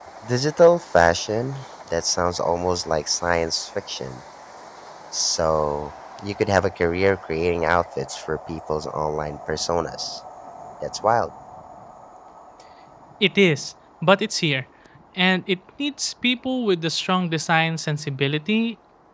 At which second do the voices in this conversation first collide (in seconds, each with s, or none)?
none